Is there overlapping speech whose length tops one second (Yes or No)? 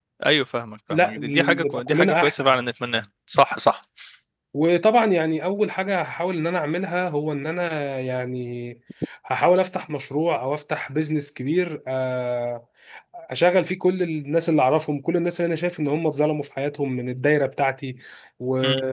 Yes